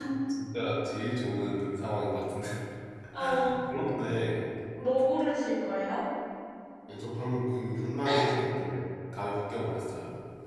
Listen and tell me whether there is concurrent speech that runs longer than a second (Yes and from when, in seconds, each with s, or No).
No